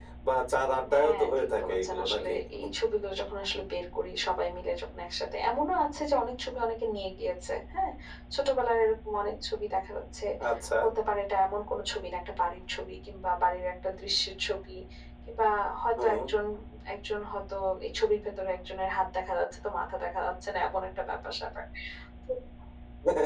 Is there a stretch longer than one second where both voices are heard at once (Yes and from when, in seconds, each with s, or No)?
Yes, from 1.0 s